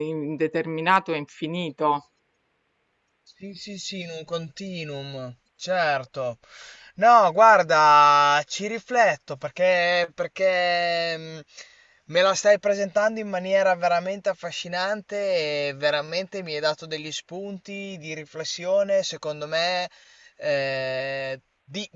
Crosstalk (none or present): none